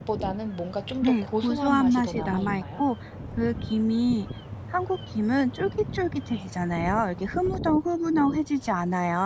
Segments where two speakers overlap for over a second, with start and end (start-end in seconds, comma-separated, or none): 1.0-2.8